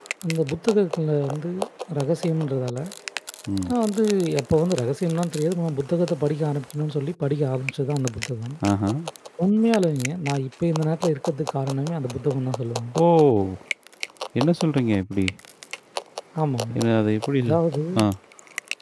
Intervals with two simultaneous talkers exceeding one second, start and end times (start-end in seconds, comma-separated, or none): none